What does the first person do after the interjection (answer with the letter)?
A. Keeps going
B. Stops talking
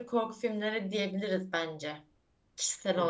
B